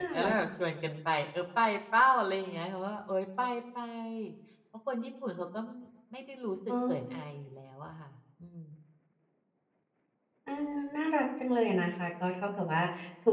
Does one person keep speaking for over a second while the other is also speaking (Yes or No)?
No